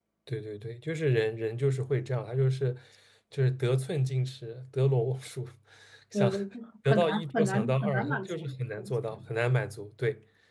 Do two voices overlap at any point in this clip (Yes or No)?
Yes